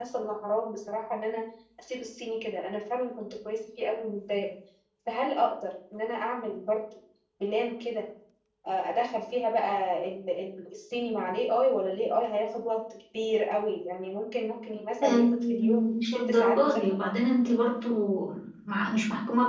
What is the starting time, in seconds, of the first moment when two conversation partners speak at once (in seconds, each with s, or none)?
15.0 s